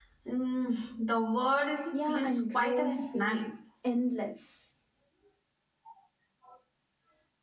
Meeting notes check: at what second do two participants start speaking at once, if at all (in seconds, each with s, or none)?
1.9 s